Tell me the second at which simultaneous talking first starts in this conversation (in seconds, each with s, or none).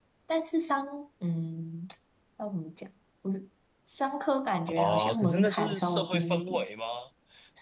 4.7 s